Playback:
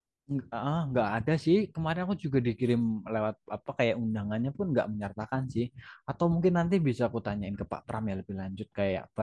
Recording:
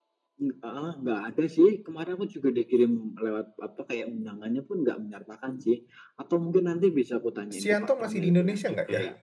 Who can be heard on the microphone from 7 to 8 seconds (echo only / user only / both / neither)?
both